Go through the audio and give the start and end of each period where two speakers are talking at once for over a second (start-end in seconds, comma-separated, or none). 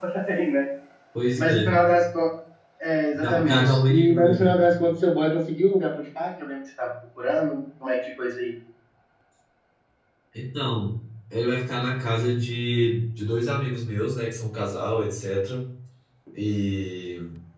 3.2-4.5